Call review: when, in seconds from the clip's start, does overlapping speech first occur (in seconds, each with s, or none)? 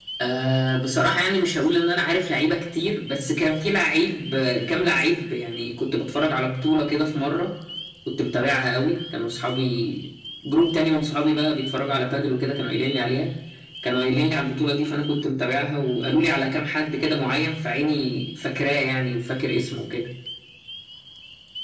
none